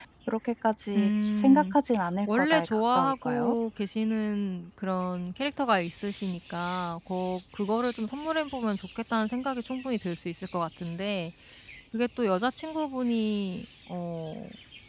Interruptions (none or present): present